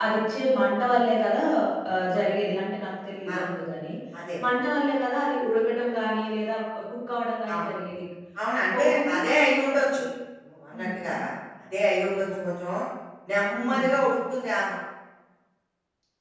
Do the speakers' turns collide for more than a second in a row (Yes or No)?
Yes